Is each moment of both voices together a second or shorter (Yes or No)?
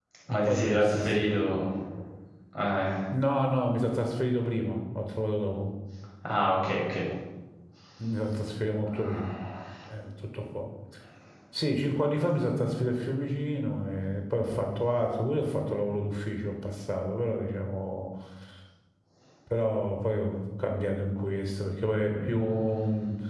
No